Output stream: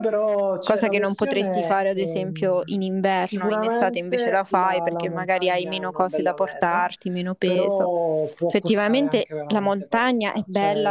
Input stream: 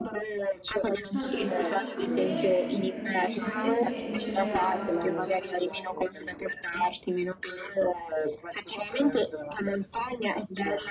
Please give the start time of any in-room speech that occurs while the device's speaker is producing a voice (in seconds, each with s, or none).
1.1 s